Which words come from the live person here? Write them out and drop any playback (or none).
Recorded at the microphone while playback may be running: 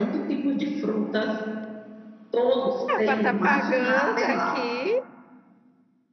Ah, para estar pagando aqui,